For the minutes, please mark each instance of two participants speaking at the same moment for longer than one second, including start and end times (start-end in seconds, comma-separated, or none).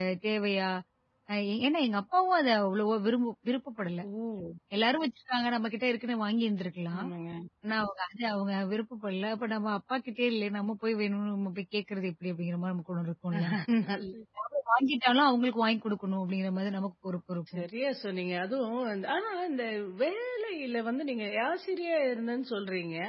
none